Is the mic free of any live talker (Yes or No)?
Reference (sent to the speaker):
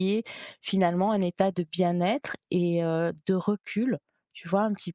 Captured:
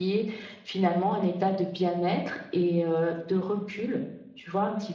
Yes